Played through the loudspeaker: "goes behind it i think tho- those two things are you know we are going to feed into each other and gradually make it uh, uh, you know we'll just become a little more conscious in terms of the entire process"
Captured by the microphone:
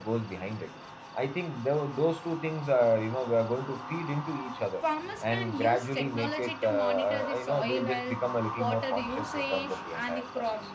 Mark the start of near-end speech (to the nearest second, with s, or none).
5 s